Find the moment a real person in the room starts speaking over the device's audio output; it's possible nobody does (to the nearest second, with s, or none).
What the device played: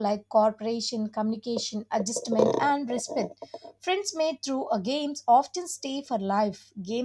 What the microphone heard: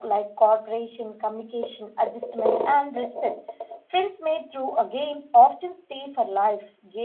none